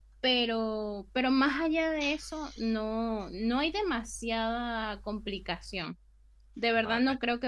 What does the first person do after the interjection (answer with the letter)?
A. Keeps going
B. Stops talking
A